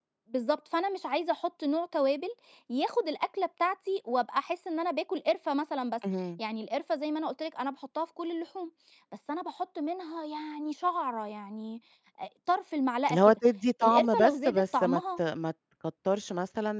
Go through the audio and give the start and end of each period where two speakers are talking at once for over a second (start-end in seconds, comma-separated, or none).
13.8-15.2